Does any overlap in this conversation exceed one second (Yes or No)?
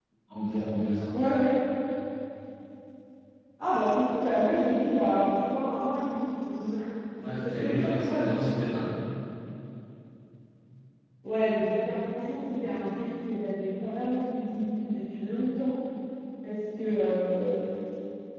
Yes